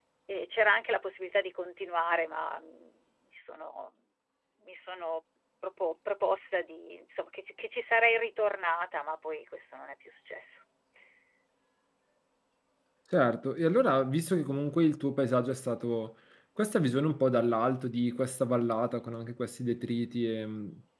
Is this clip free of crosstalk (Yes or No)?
Yes